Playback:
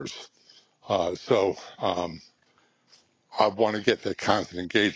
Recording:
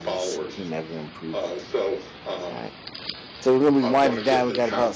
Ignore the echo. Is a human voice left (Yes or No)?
Yes